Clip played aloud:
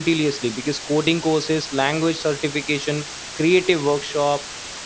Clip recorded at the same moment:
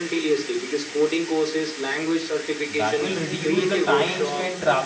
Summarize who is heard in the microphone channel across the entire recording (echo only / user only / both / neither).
both